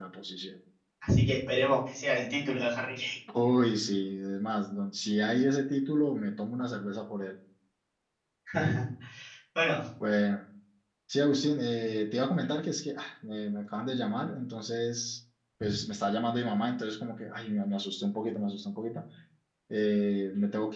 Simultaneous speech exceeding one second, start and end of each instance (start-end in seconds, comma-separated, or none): none